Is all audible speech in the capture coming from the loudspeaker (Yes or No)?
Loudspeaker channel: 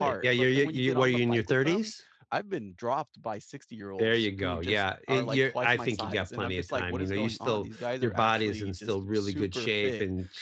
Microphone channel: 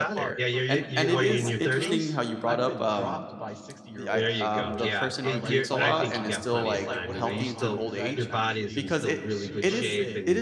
No